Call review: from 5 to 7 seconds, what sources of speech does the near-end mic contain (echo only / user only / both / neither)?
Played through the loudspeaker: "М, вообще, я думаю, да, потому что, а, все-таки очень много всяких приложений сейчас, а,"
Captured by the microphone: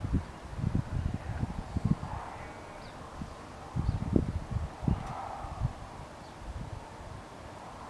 neither